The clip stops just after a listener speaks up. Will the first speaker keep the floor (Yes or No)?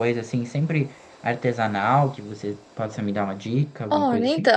No